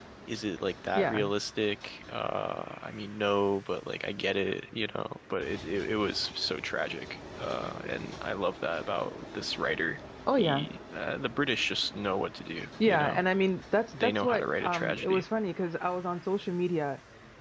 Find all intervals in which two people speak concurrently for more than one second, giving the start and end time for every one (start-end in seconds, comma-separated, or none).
14.0-15.2